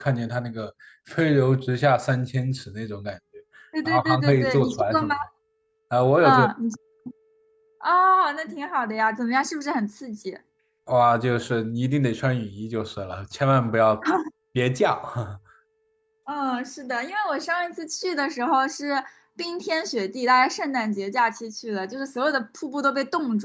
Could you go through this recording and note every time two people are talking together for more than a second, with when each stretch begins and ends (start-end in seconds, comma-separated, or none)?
3.9-5.1